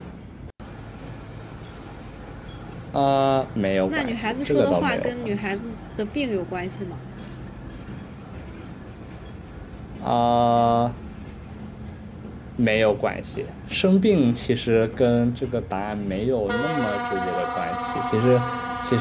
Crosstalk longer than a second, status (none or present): present